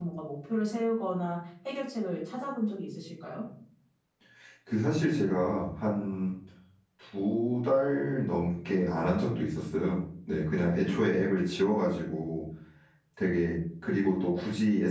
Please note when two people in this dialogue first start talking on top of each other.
none

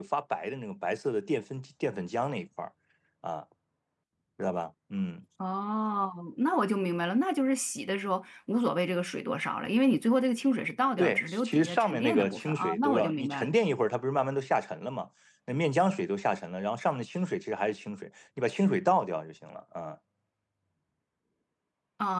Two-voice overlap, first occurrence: 11.0 s

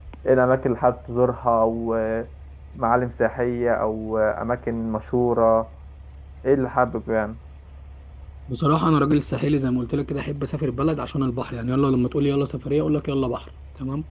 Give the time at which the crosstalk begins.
none

